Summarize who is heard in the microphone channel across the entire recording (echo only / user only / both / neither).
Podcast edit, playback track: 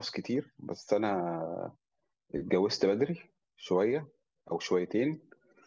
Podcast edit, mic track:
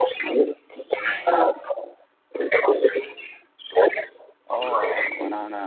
both